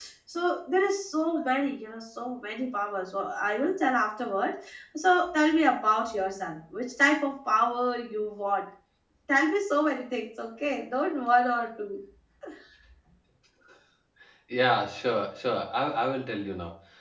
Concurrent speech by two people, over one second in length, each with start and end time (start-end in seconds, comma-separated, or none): none